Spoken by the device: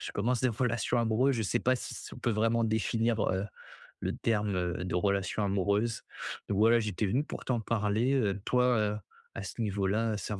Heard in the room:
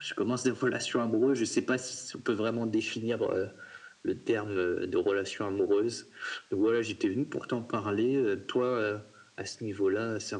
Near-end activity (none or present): none